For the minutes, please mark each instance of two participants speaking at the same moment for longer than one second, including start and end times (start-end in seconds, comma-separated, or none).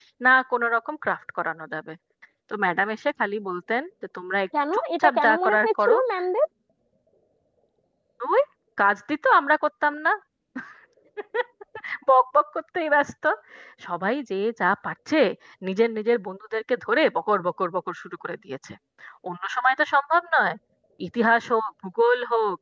4.7-6.0